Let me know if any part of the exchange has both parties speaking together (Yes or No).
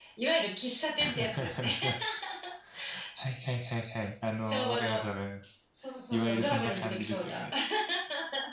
Yes